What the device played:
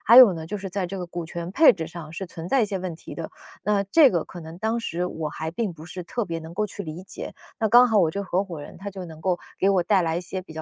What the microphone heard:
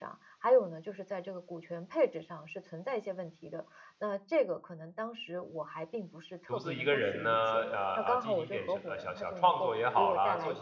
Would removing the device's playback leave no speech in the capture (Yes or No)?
No